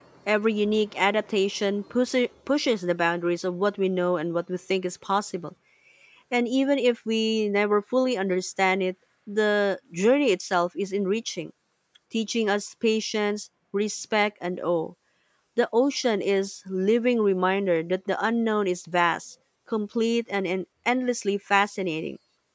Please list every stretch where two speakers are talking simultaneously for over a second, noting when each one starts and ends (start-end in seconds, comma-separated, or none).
none